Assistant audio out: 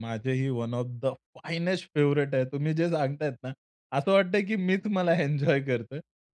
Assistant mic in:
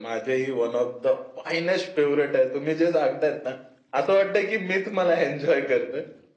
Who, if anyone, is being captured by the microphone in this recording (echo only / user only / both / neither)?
echo only